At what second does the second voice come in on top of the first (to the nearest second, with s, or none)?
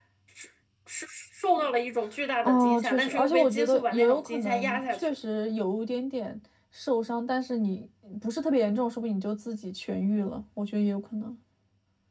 2 s